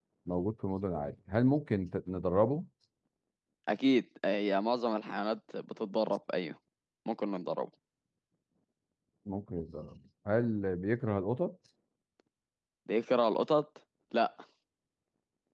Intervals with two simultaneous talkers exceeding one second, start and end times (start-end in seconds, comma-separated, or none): none